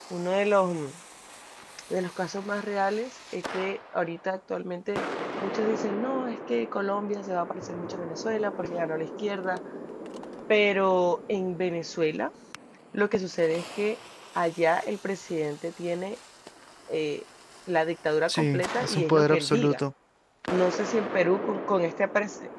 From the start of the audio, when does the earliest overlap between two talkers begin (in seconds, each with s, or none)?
18.3 s